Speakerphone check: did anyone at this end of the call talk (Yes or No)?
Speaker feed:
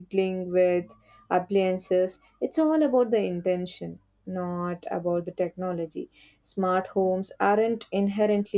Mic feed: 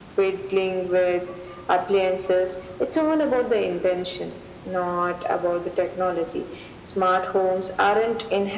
No